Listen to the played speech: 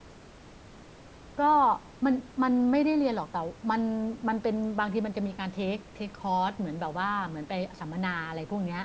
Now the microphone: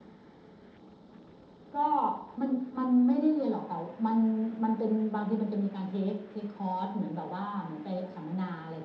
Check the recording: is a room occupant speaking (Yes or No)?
No